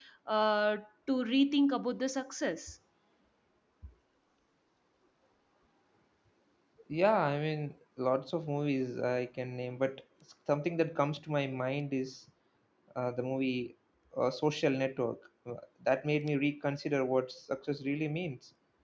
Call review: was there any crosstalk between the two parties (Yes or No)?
No